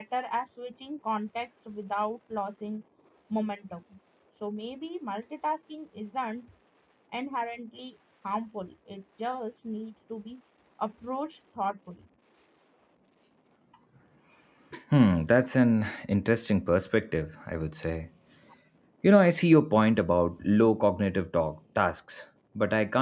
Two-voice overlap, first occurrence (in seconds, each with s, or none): none